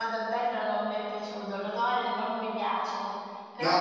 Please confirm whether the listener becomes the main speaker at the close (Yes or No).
Yes